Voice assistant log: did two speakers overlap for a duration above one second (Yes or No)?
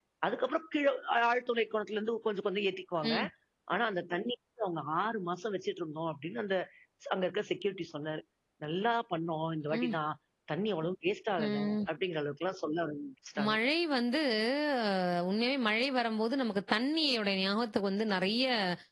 No